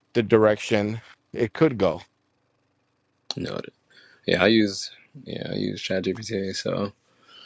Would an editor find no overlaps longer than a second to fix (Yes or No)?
Yes